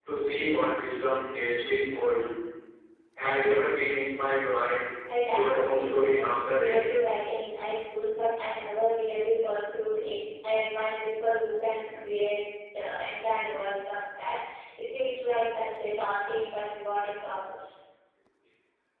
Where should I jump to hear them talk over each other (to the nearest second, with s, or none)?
5 s